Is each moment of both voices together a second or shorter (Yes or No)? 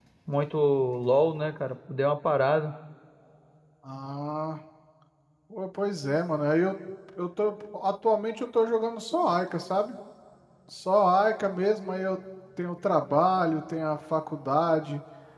Yes